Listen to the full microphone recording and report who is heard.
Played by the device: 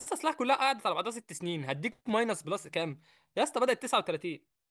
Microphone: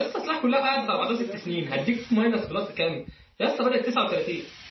both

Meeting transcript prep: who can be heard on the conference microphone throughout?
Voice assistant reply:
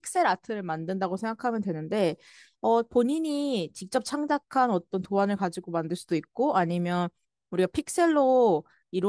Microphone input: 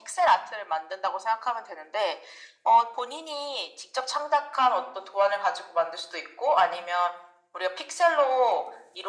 echo only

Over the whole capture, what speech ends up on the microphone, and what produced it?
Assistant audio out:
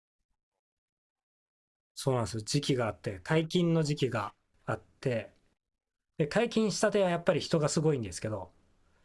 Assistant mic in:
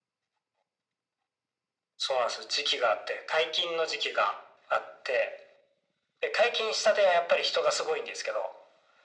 echo only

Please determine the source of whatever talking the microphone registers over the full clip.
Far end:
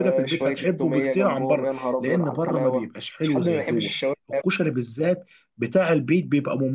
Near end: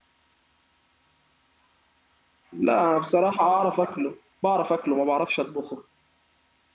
user only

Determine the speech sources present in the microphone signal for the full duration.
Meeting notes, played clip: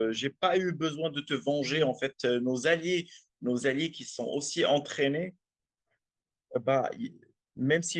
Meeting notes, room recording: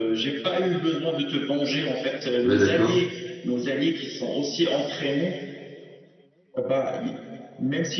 both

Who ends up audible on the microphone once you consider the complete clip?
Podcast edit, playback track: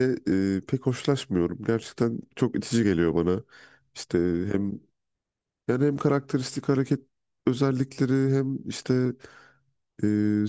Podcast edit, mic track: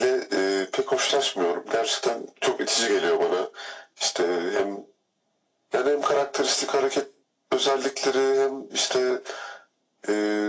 echo only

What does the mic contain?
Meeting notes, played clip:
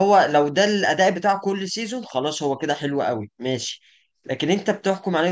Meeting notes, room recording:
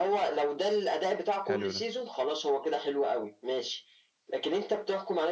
both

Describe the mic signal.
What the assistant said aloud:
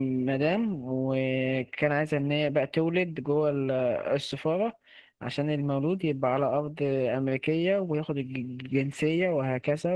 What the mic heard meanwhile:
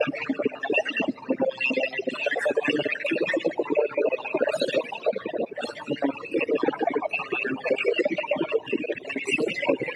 echo only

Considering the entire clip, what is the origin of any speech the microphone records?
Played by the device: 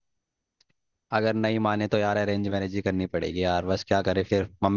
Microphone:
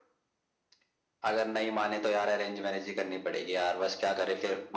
echo only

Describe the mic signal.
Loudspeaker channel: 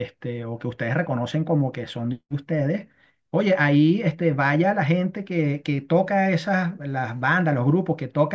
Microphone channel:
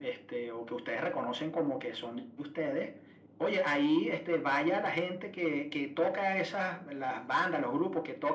echo only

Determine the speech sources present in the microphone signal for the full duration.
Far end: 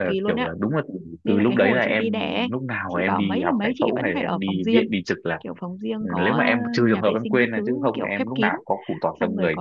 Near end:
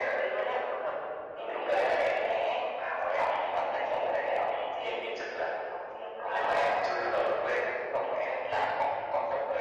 echo only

